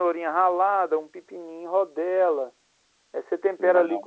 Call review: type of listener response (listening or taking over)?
listening